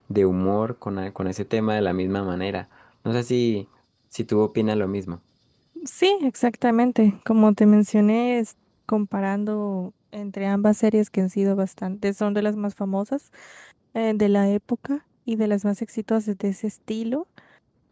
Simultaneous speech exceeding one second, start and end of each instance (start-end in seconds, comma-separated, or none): none